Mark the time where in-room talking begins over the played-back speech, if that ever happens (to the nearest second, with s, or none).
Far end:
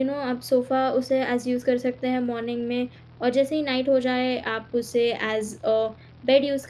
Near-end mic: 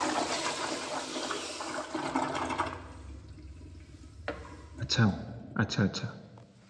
5 s